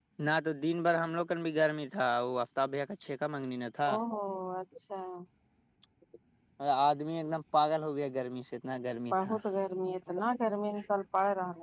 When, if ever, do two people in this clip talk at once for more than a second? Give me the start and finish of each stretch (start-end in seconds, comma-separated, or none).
none